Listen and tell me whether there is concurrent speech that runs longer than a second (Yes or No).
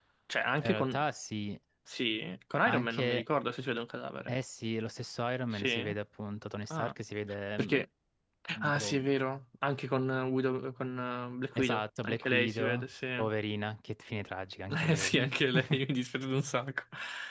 Yes